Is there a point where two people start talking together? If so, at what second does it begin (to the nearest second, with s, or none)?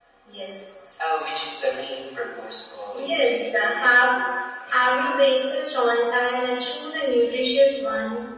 3 s